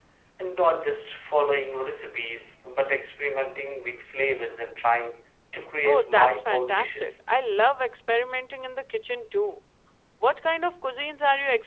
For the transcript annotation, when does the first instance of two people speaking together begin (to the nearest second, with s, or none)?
6 s